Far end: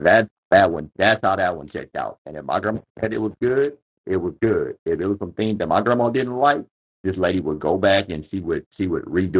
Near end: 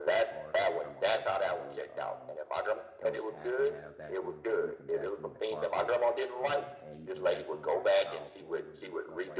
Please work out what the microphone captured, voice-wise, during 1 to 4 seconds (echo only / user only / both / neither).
both